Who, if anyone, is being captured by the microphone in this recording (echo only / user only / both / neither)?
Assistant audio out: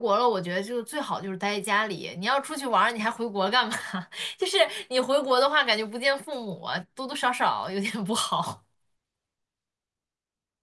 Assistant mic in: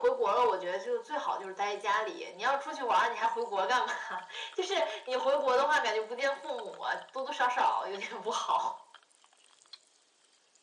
echo only